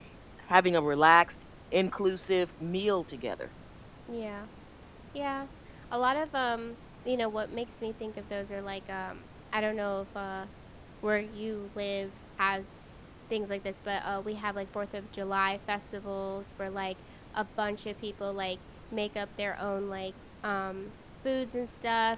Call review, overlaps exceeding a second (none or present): none